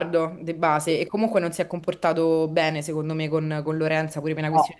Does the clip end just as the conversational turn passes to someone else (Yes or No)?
No